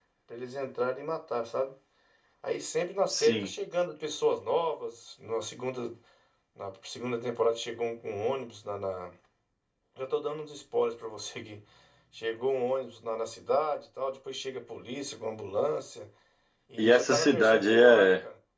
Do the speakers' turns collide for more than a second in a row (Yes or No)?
Yes